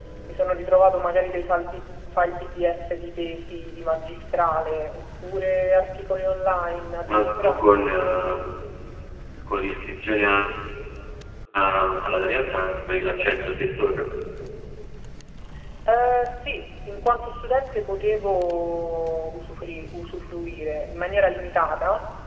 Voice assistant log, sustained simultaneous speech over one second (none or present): none